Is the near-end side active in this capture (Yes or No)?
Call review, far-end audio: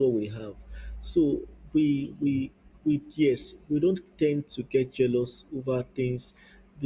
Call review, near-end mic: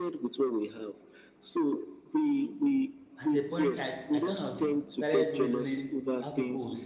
Yes